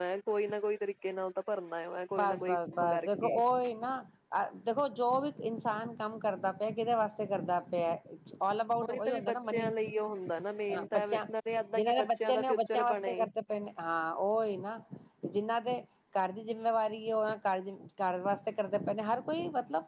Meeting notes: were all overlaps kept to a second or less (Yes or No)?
No